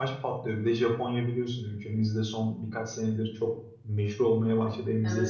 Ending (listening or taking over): listening